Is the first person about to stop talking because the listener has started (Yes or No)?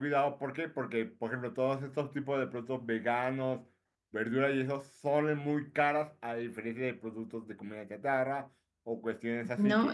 Yes